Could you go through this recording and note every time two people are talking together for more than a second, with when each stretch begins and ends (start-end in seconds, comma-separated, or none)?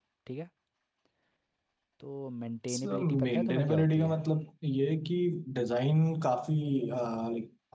2.7-4.2